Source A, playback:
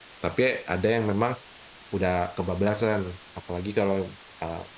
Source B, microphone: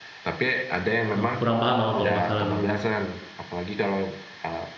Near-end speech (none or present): present